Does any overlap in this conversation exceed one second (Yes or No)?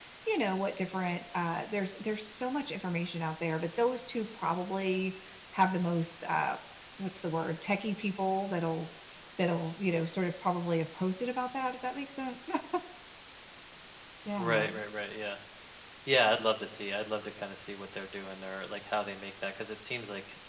No